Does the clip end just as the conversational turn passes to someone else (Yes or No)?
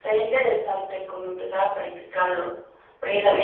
No